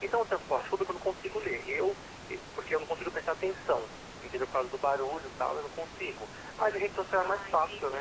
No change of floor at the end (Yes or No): Yes